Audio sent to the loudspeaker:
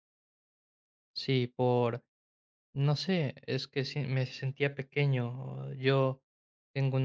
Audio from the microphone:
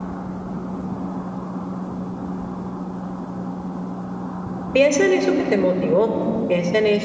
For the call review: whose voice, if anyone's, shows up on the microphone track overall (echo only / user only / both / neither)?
user only